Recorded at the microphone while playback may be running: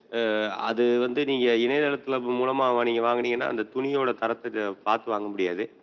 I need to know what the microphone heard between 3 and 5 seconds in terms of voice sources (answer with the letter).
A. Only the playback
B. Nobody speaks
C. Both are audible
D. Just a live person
A